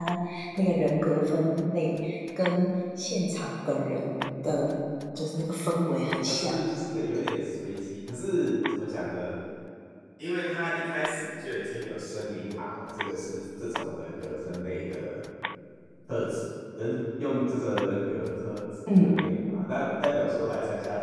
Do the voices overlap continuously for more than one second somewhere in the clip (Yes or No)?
No